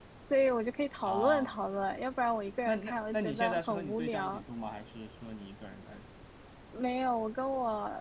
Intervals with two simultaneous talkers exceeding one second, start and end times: 2.6-4.4

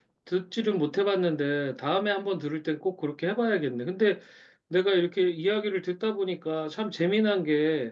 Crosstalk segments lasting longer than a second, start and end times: none

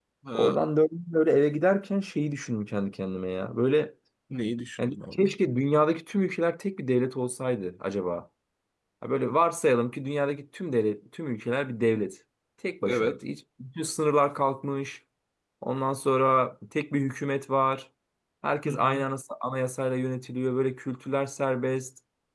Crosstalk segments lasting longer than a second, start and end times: none

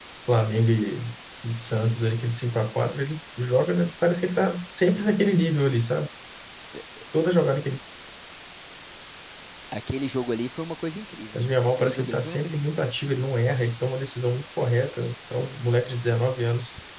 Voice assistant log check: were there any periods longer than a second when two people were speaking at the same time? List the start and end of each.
11.3-12.8

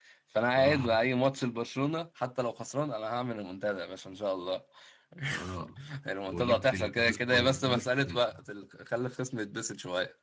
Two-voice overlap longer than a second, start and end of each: 6.3-7.9

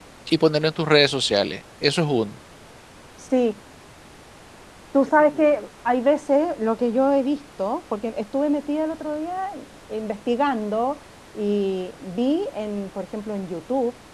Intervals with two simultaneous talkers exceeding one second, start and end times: none

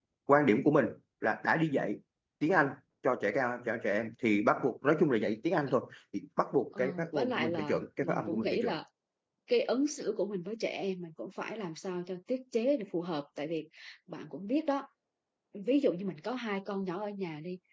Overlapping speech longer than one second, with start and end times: 6.8-8.8

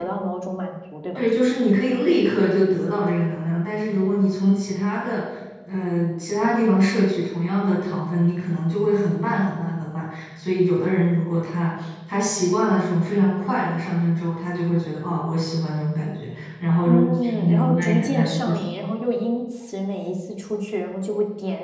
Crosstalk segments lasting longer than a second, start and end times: 16.8-18.6

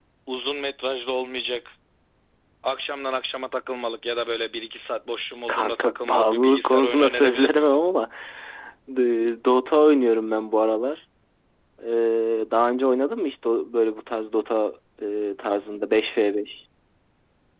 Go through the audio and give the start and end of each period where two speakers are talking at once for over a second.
5.5-7.8

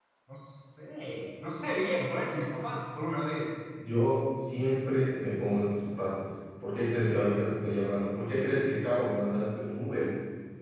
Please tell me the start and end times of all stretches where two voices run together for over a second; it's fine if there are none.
none

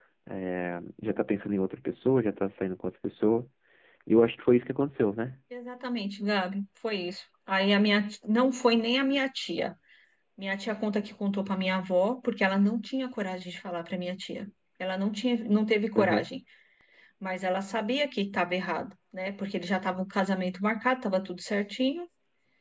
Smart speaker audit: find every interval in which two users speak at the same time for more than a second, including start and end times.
none

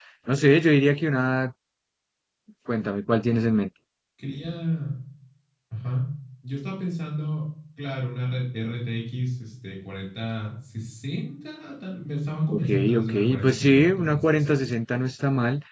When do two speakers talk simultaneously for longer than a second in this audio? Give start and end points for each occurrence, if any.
12.5-14.7

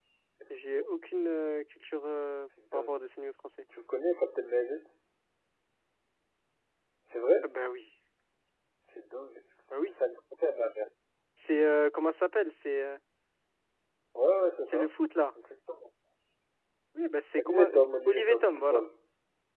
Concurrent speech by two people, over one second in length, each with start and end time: 17.4-18.8

